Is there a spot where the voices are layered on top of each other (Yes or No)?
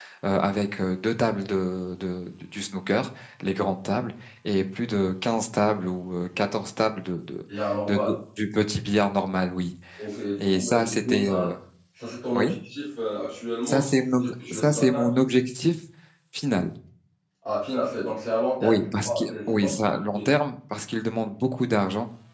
Yes